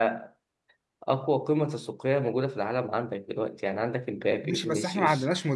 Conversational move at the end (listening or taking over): taking over